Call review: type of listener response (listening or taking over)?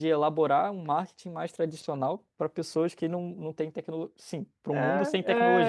taking over